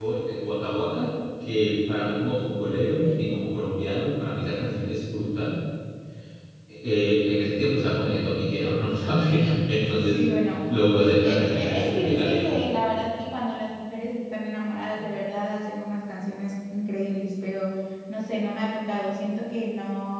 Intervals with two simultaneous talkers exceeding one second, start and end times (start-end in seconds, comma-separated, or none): 11.2-12.6